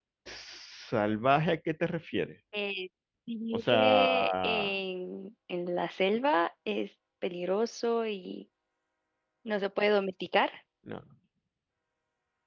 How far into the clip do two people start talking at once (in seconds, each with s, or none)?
3.5 s